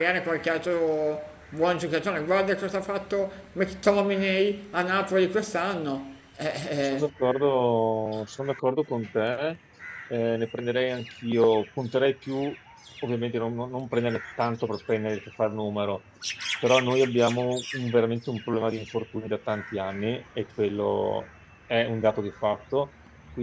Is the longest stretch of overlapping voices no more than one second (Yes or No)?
Yes